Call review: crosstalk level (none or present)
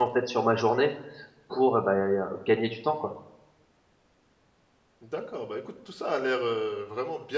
none